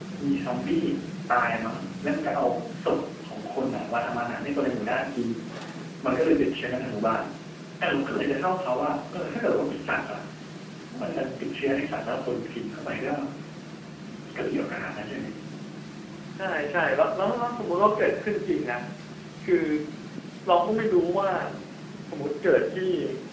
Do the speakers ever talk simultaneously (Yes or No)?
No